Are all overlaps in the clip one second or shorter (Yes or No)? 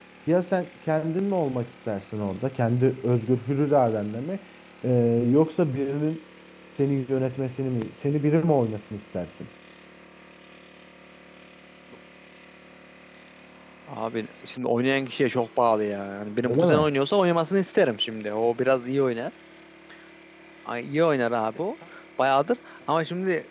Yes